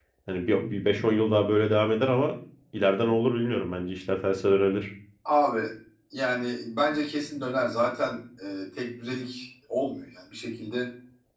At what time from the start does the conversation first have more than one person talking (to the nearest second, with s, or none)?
none